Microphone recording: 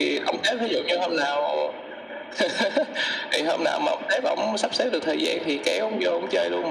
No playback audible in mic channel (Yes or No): No